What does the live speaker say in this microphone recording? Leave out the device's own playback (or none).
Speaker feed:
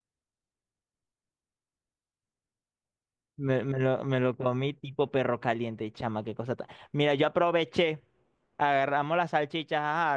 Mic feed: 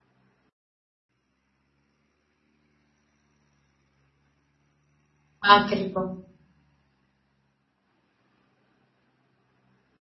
Ah, qué rico.